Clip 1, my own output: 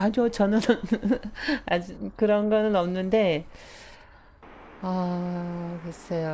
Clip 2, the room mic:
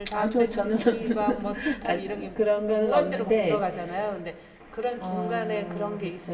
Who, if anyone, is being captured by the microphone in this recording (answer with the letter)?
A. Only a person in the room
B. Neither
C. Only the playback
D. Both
D